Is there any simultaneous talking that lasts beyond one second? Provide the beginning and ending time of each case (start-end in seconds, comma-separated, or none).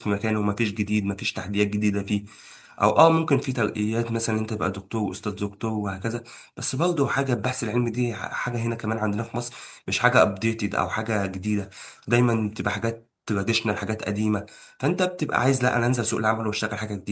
none